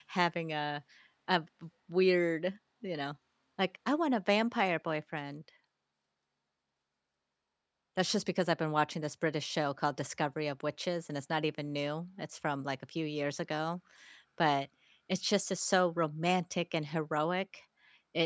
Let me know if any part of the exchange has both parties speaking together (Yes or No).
No